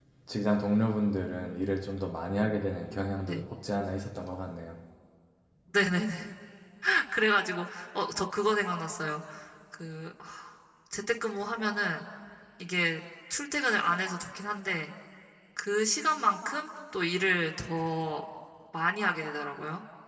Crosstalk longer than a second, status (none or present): none